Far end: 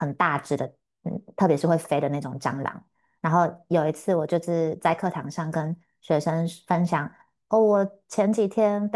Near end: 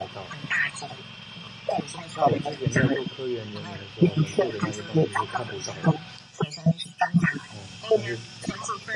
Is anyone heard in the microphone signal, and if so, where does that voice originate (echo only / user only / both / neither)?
both